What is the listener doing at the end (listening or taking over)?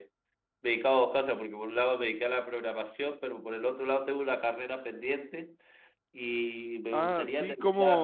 taking over